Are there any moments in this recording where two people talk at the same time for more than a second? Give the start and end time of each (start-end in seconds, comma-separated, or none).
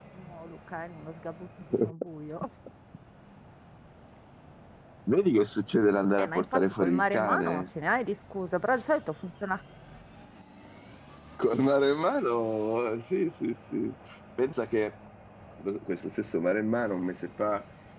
6.2-7.7